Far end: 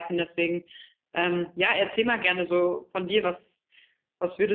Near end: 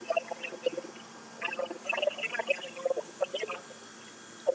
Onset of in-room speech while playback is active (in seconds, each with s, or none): none